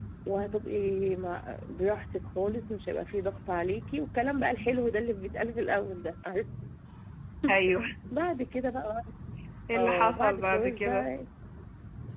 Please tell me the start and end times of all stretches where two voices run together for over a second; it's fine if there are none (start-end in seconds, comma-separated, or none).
9.7-11.1